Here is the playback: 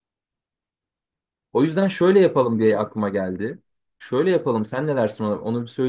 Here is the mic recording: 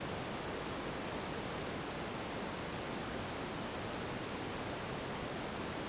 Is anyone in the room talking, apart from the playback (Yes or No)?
No